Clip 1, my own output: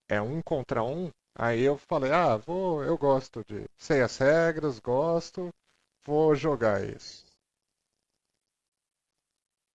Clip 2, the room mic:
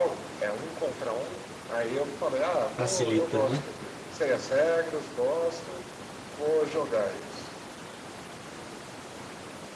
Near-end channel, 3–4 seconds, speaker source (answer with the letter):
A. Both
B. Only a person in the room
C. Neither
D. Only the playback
A